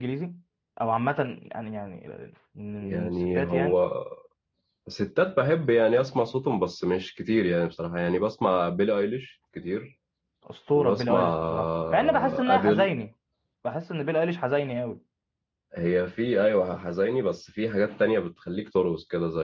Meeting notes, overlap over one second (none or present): present